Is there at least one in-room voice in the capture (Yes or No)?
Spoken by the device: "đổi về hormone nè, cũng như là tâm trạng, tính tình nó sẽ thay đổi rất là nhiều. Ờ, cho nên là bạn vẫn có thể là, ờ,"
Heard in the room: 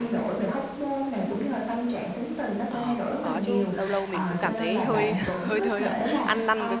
Yes